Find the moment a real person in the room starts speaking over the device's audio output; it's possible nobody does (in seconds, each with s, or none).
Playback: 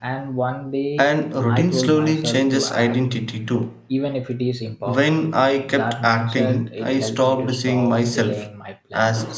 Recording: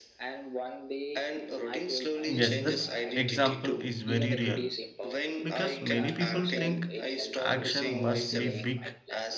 2.2 s